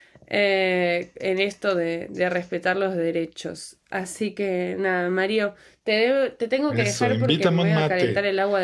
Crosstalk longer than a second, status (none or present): present